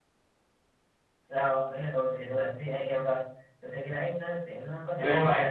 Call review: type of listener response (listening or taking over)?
listening